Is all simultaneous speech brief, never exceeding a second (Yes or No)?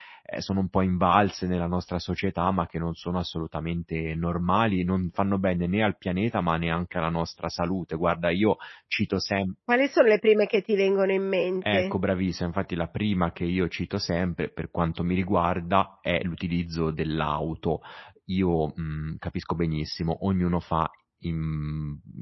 Yes